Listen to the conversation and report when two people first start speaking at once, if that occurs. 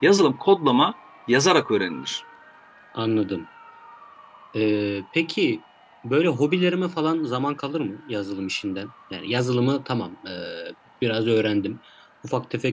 none

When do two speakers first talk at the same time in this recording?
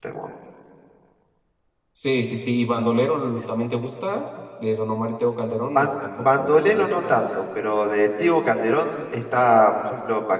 5.8 s

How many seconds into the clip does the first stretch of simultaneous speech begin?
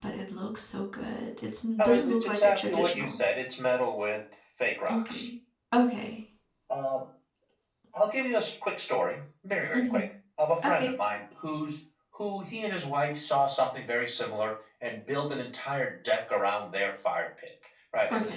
1.8 s

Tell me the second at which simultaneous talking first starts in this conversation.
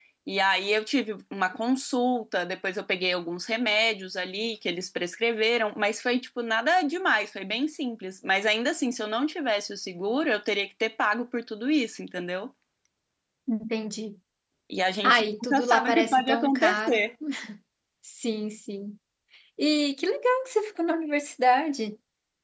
15.0 s

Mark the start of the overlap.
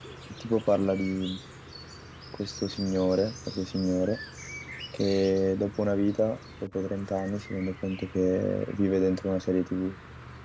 none

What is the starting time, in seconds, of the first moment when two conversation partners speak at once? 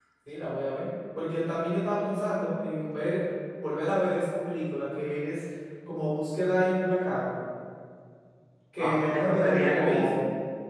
8.8 s

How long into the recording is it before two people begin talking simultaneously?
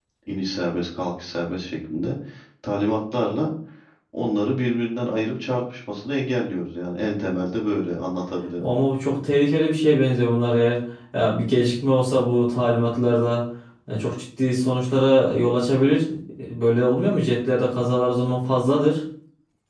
none

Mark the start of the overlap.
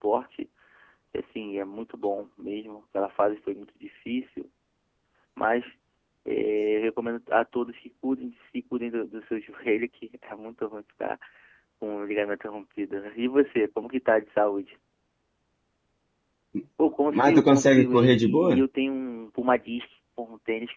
17.1 s

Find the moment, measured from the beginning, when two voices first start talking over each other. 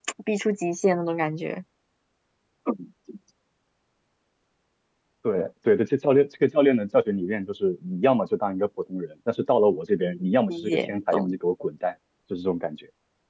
10.0 s

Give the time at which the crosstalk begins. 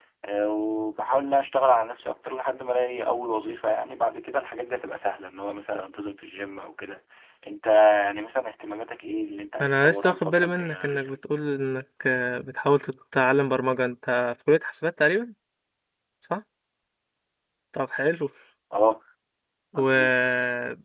9.6 s

